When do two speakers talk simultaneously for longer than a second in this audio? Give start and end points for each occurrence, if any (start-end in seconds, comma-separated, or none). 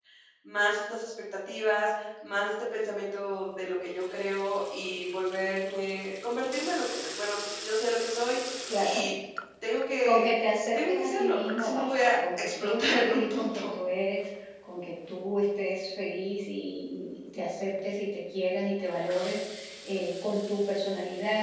10.7-13.7